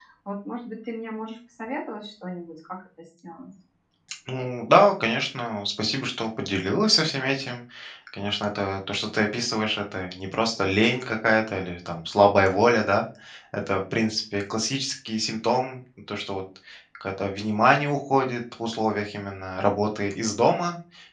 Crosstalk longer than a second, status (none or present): none